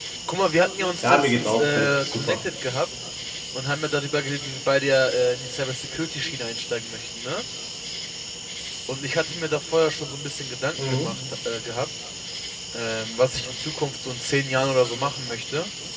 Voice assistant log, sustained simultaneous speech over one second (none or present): present